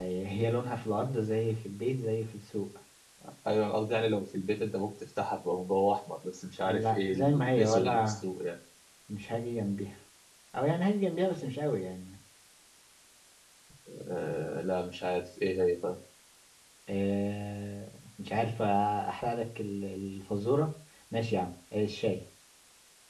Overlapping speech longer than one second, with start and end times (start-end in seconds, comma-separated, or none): 6.6-8.2